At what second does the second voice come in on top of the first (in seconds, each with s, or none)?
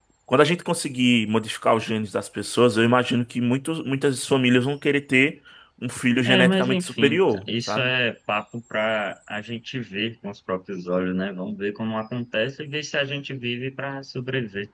6.2 s